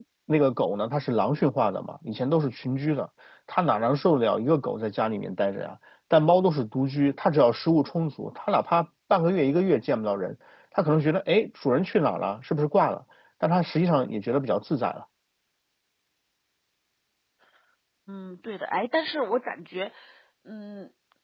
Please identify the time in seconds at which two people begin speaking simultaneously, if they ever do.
none

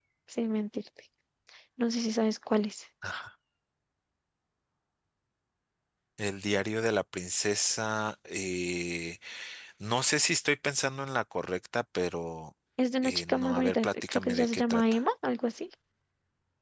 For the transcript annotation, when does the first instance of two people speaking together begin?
13.0 s

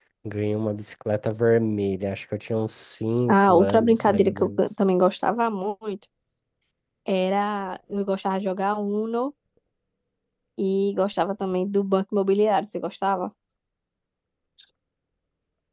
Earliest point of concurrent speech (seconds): 3.3 s

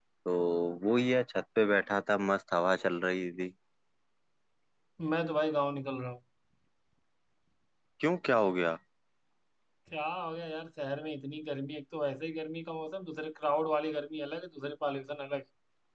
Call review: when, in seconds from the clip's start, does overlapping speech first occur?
none

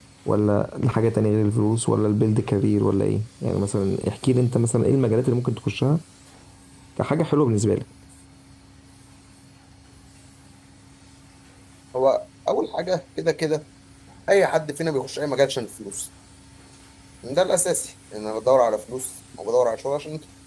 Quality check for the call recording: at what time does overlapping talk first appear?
none

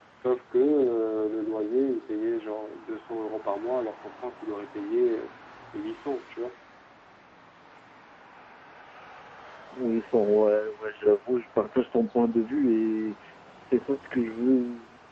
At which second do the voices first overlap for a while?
none

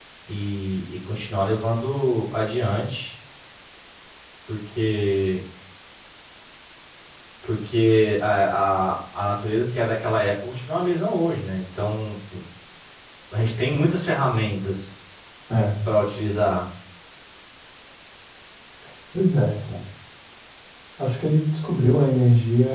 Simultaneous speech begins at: none

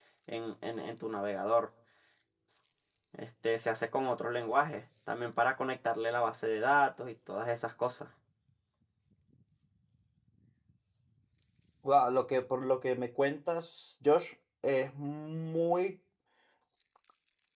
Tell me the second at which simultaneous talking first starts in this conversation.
none

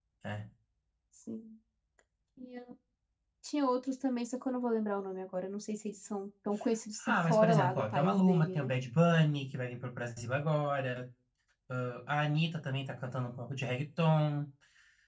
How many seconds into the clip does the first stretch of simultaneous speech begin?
7.0 s

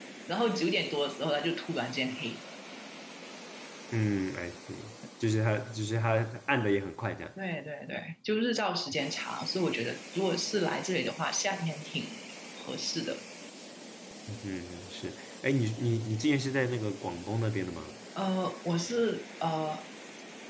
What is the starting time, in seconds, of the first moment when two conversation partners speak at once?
none

